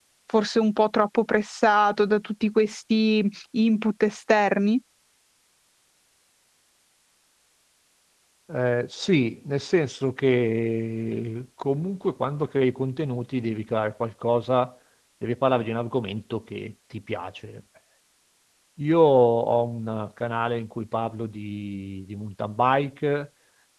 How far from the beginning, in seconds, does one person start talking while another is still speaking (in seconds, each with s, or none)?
none